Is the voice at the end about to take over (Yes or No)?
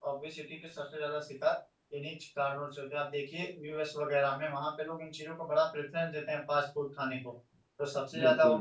No